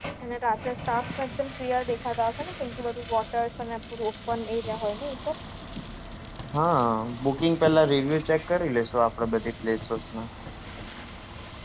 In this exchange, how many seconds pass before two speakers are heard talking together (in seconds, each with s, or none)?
none